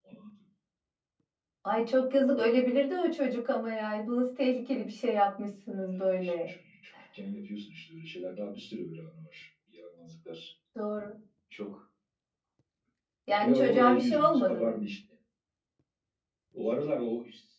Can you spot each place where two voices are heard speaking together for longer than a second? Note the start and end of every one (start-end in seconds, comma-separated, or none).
13.4-14.7